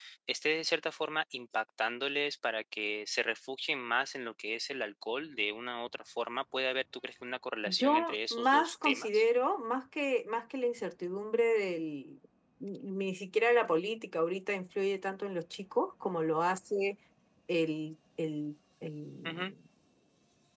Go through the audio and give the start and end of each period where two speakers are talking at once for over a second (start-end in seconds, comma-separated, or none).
7.7-9.2